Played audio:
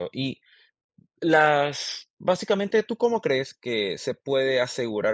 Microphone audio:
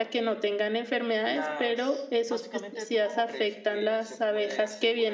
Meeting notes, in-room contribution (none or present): present